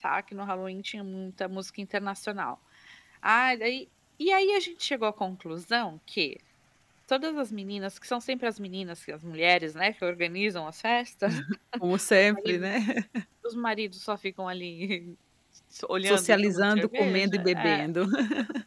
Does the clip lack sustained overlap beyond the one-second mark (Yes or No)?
No